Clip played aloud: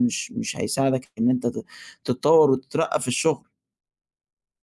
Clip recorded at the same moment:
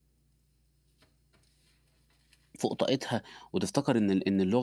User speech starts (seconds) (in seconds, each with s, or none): 2.6 s